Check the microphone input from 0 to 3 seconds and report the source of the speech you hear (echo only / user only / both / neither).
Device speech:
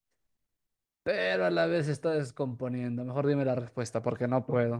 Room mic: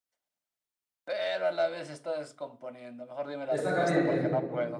echo only